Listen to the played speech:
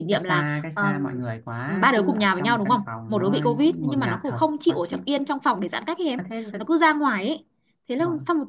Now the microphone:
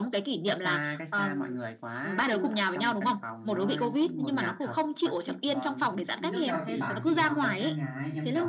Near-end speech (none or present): present